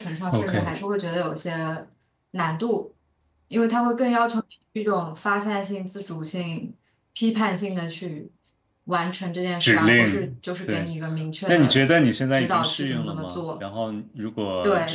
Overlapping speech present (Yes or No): Yes